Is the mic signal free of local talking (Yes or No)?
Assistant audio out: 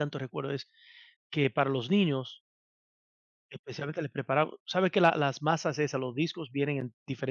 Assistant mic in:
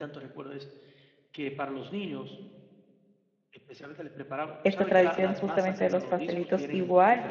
No